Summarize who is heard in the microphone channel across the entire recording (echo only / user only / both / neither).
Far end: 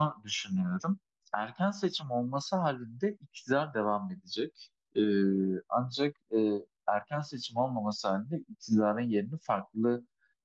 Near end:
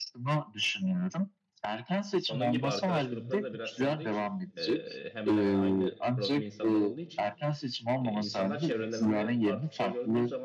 both